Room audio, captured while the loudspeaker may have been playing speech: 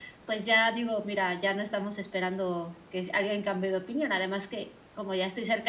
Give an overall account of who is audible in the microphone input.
echo only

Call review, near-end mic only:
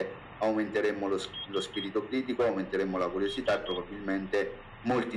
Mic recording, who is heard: echo only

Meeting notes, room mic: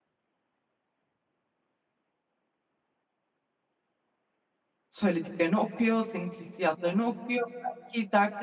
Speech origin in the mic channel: user only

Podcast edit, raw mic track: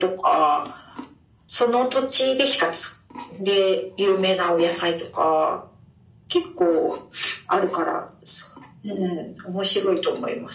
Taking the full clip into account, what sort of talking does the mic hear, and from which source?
echo only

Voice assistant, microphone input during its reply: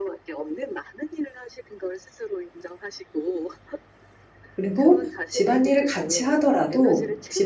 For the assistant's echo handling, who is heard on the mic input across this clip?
both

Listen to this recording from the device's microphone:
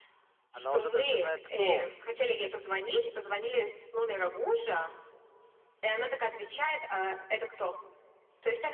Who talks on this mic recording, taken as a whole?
both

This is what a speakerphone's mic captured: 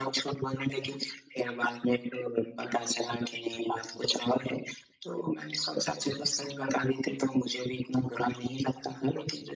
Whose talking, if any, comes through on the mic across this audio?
echo only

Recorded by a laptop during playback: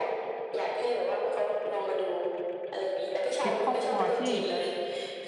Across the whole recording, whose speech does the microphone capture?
both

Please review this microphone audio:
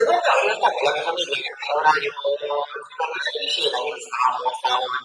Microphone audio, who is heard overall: echo only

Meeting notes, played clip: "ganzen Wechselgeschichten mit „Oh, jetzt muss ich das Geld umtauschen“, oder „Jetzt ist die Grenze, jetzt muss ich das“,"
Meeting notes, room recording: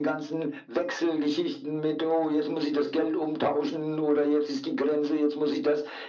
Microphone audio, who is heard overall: echo only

